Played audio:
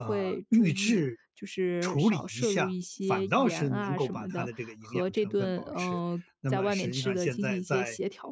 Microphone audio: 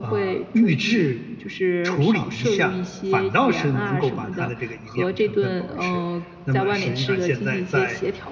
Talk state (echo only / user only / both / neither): echo only